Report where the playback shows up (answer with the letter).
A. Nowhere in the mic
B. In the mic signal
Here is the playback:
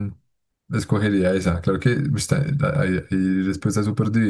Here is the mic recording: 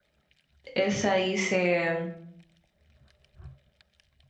A